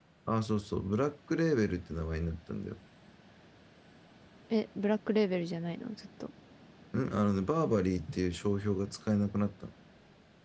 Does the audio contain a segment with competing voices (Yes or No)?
No